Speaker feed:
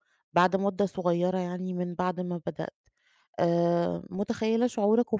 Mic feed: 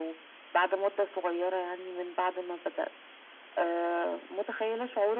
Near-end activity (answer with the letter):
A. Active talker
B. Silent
B